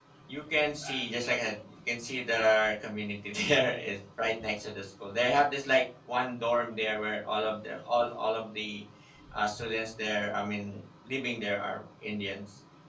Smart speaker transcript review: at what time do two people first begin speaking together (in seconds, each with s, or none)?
none